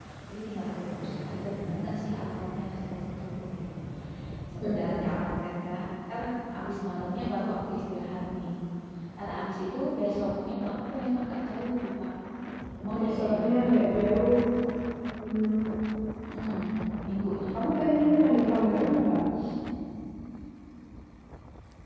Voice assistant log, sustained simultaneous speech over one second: present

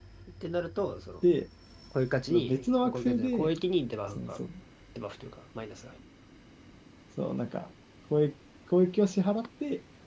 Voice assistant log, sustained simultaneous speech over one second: present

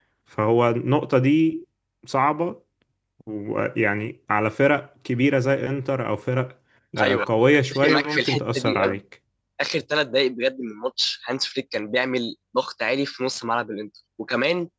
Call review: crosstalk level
present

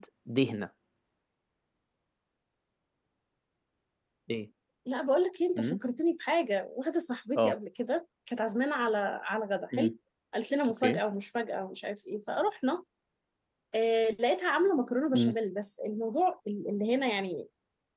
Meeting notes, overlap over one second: none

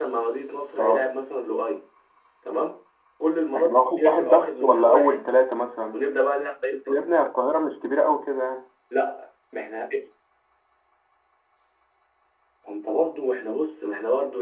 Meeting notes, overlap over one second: present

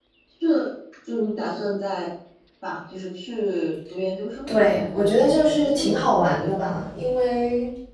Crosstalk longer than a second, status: present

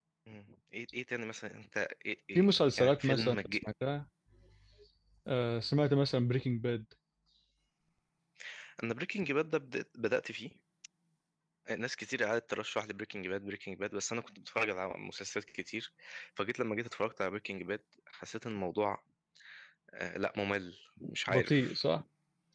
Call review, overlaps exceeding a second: present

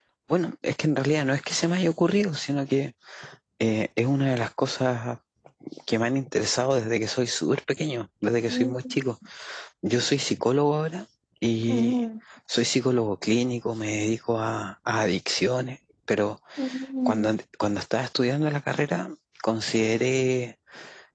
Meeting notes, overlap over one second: none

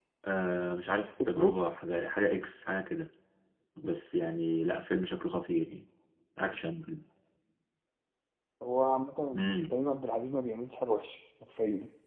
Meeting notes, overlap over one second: none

